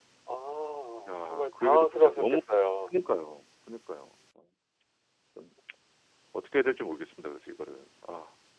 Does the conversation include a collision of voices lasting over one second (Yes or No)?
Yes